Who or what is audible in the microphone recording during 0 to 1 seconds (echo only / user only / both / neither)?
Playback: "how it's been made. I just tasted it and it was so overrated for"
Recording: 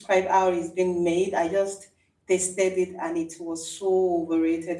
echo only